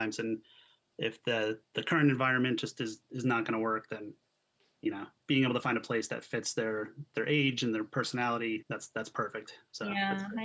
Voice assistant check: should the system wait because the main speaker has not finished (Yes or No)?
No